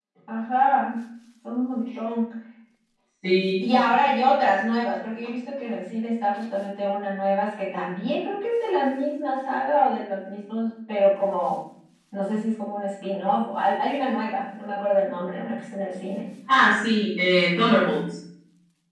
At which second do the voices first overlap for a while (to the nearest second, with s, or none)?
none